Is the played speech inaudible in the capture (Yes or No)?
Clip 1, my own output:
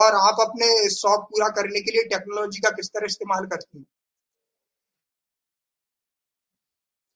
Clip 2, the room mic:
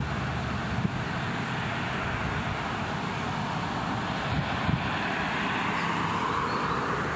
Yes